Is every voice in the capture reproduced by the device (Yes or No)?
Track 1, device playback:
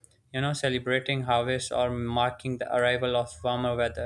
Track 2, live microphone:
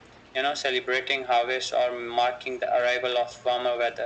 Yes